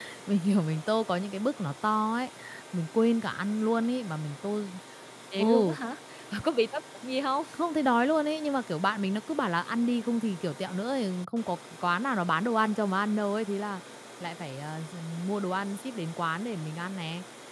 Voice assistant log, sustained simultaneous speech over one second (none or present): none